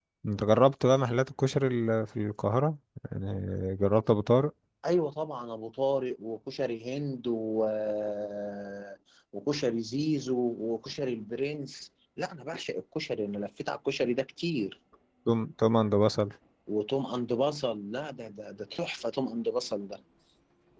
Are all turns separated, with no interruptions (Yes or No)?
Yes